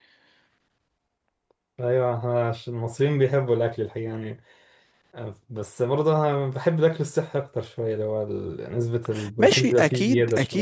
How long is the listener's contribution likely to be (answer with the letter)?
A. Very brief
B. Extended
B